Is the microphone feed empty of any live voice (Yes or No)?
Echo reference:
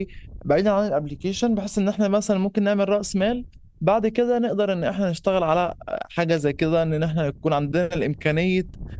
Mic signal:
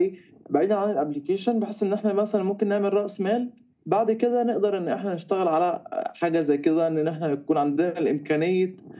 Yes